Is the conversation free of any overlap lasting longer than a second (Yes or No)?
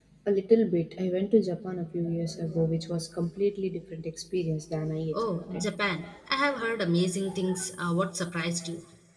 Yes